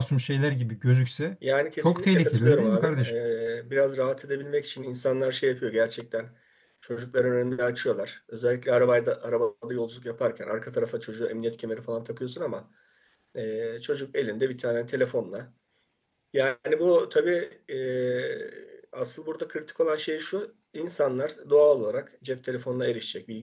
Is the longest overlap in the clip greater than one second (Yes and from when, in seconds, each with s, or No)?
Yes, from 1.8 s